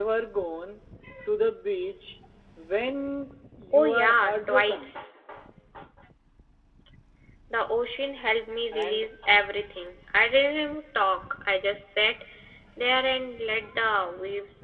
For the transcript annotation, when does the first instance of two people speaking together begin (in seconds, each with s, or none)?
3.7 s